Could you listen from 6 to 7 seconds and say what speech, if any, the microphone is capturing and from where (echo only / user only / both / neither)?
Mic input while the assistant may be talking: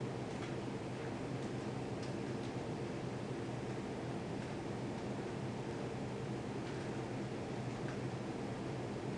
neither